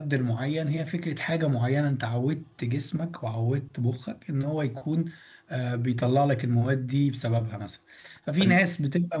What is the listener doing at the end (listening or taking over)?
listening